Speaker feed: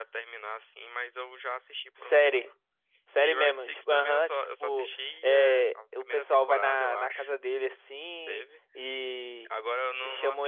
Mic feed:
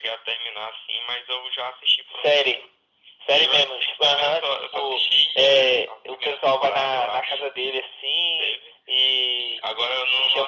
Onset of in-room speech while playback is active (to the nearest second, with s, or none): none